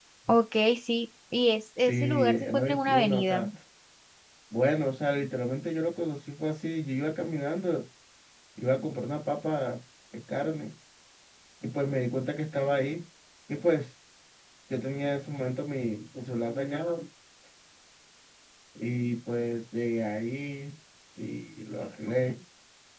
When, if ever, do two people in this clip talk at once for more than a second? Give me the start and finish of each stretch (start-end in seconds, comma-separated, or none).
1.8-3.4